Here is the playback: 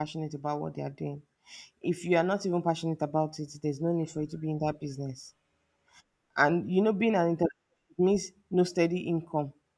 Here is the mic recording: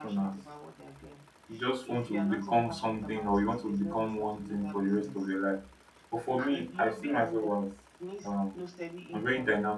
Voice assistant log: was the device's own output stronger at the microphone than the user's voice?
No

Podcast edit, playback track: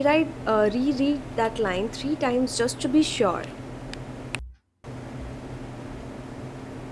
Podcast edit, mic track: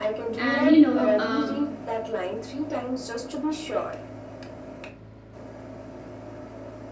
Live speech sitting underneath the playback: No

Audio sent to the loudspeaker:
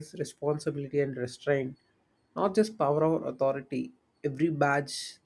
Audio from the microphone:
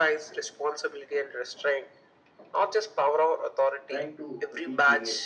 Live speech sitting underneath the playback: Yes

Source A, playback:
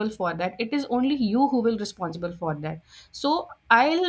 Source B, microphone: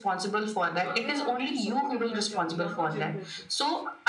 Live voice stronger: No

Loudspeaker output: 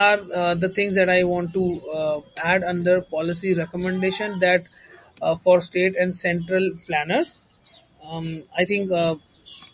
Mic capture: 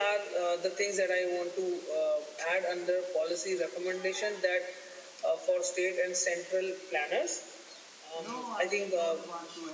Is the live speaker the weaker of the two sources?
Yes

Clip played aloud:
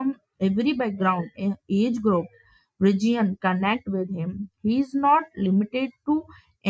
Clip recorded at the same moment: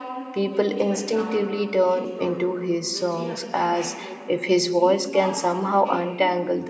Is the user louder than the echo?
Yes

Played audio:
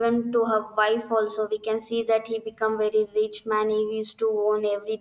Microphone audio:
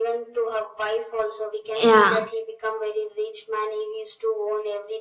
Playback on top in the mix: No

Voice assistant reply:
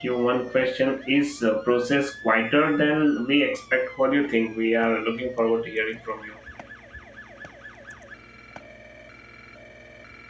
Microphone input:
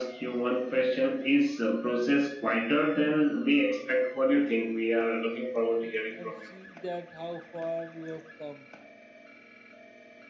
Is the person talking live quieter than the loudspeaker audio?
Yes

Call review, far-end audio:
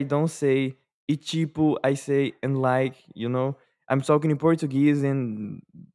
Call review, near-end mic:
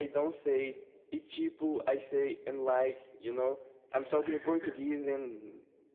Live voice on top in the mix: No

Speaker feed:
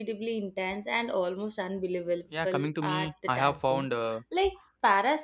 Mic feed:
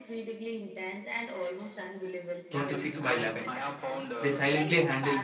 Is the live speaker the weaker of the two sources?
No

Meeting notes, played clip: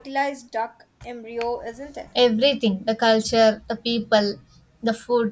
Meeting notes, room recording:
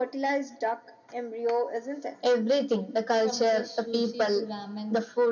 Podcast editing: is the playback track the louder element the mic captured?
Yes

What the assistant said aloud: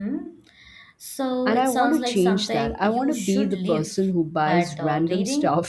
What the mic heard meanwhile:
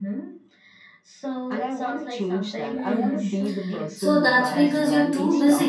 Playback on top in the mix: No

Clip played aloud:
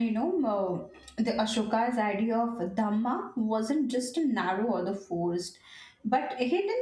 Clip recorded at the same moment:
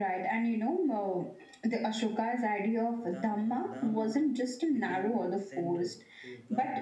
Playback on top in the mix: Yes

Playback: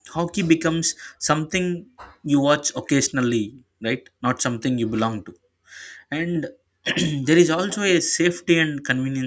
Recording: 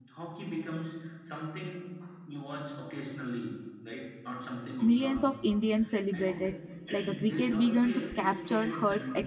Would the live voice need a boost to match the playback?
No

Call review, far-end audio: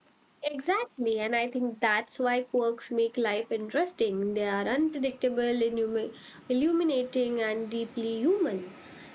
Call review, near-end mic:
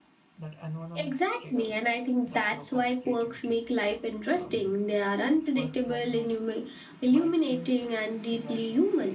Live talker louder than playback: No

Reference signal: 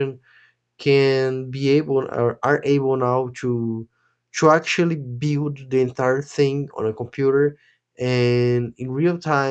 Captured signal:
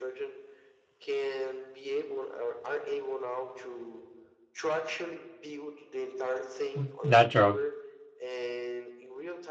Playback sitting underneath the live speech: Yes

